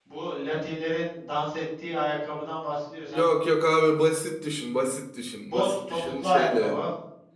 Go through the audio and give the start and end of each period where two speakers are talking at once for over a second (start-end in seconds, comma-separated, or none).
5.4-6.8